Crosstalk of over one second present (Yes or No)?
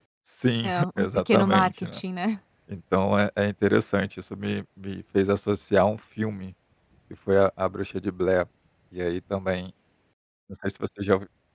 Yes